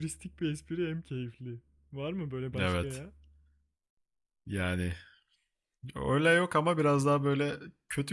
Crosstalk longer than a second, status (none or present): none